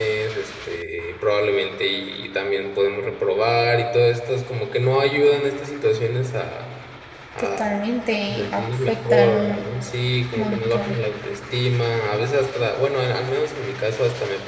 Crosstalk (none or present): present